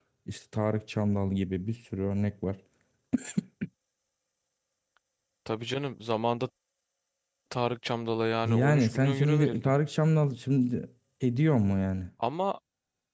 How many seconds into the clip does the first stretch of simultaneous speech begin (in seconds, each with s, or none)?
8.4 s